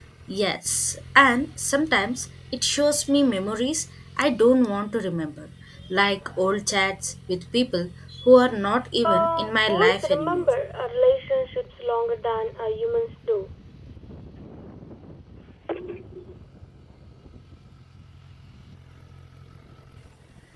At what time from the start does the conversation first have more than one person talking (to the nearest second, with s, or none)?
9 s